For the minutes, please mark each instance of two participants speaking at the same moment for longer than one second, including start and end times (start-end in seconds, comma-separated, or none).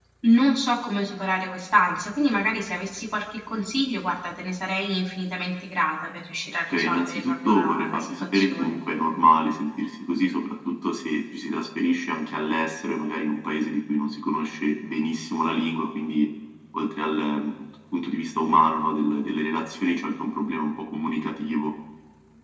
6.7-8.8